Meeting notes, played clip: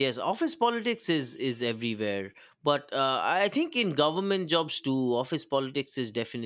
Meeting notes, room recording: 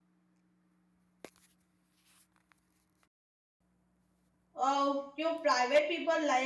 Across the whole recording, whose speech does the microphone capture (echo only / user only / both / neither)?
user only